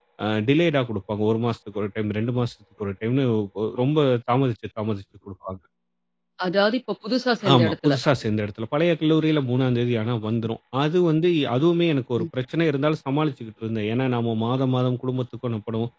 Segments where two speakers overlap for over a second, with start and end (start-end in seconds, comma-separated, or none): none